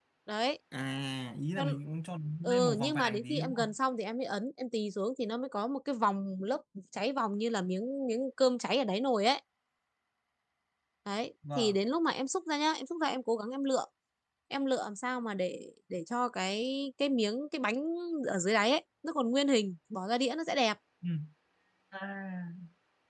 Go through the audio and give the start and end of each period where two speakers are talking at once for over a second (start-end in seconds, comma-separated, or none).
2.4-3.7